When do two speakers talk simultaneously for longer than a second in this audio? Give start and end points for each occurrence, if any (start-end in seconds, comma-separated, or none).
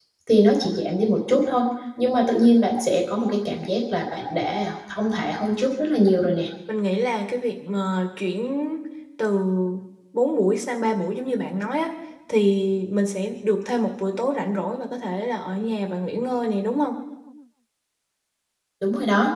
none